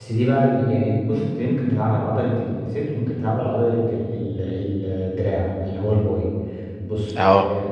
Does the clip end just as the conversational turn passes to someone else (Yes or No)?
No